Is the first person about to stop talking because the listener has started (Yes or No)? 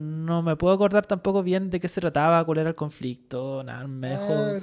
Yes